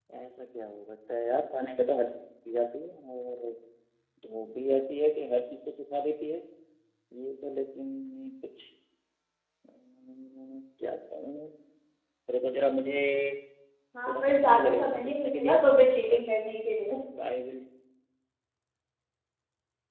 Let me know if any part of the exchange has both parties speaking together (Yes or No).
Yes